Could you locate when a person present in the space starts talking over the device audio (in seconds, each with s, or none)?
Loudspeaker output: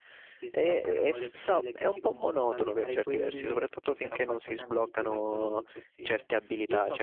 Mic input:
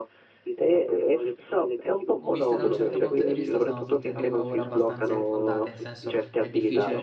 2.2 s